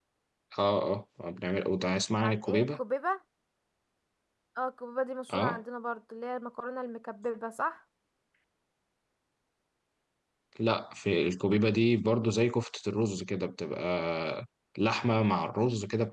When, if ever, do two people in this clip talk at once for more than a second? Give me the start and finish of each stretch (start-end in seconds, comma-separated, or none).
none